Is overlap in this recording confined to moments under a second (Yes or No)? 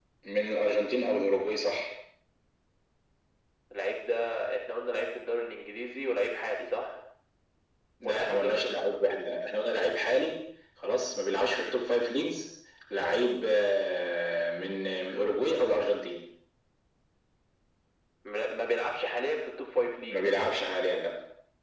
No